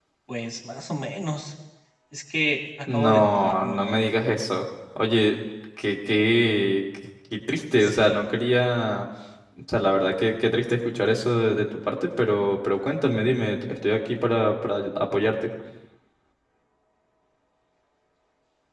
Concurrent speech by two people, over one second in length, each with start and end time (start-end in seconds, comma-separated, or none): 2.9-4.1